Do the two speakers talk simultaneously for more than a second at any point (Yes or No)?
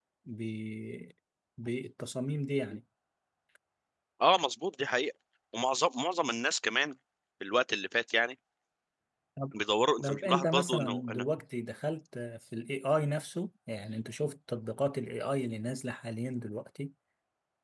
Yes